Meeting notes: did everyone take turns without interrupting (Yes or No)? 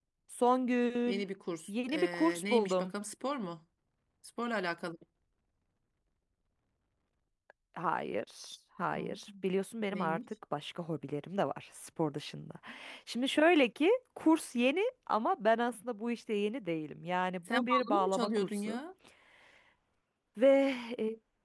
No